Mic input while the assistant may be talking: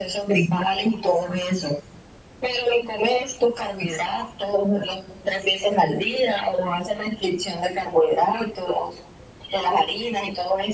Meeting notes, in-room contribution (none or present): none